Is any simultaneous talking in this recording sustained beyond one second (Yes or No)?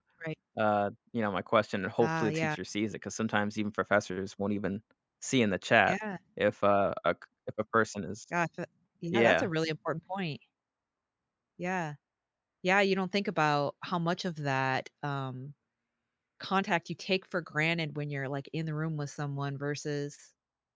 No